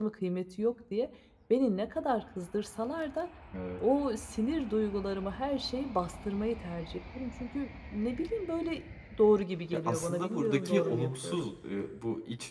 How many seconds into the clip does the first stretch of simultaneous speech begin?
9.7 s

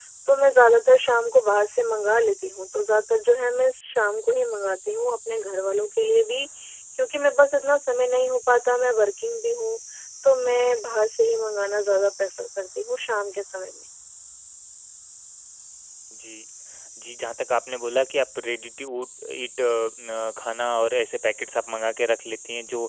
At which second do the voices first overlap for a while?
none

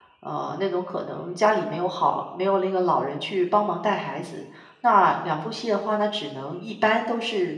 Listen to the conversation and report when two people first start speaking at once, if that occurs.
none

